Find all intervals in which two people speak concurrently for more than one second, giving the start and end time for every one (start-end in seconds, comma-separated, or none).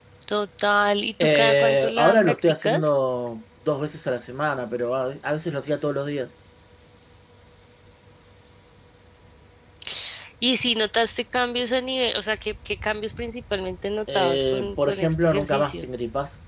1.4-2.9, 14.1-15.9